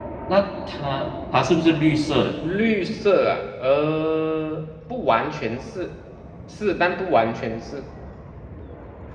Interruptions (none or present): none